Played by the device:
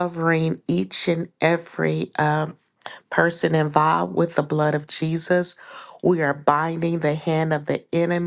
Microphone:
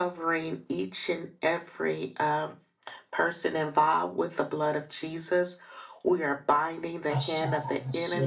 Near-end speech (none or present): present